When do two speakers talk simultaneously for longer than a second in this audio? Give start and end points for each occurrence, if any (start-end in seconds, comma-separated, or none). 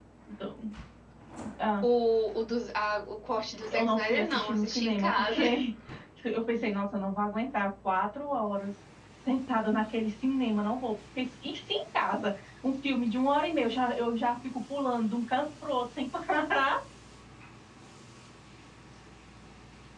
3.7-5.4